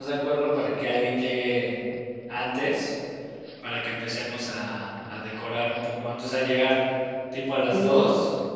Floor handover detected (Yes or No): No